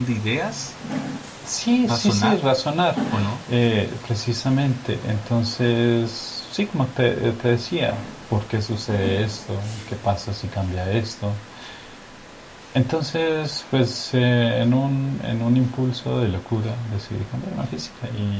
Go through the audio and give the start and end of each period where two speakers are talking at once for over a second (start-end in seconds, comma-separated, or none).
none